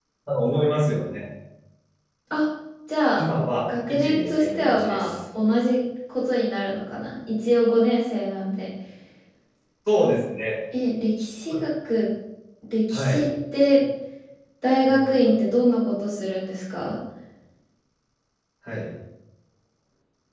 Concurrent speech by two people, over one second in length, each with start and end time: 3.9-5.1

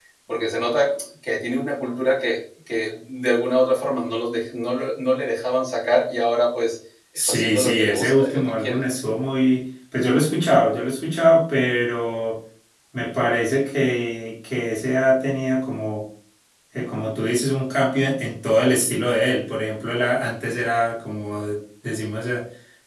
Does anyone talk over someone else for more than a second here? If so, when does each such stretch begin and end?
7.2-8.8

